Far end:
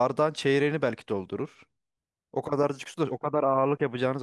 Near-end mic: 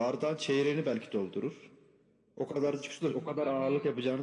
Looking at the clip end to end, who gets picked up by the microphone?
both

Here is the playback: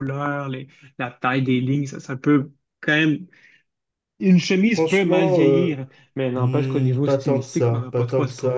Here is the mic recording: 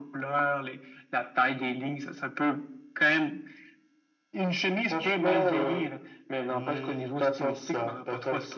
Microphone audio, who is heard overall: echo only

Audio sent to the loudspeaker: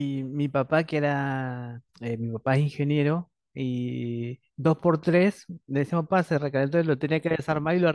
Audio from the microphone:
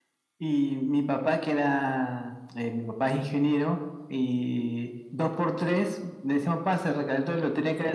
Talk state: echo only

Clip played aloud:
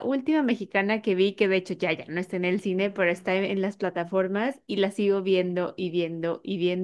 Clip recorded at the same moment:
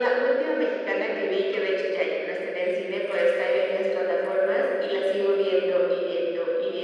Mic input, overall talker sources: echo only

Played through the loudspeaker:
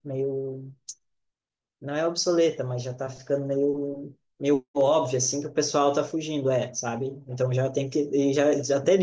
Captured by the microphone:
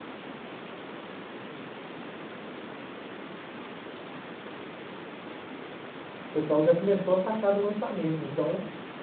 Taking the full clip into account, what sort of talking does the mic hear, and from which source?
user only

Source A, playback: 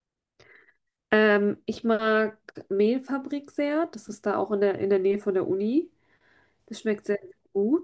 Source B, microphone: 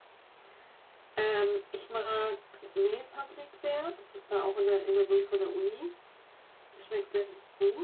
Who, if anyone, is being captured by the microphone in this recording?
echo only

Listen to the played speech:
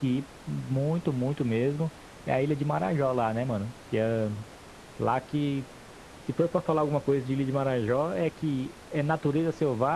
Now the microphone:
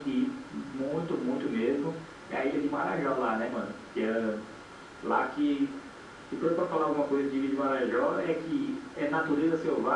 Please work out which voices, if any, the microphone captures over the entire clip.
echo only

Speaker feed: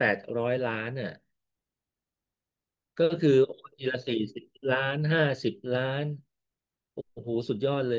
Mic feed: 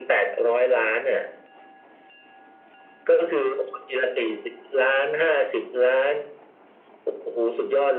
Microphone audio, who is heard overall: echo only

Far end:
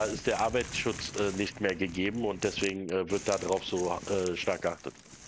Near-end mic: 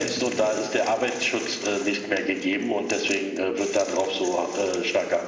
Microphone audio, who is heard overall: echo only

